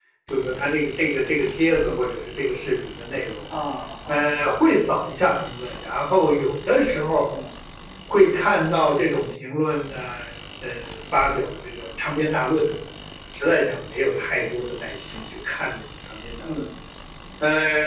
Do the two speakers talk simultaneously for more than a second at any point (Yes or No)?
No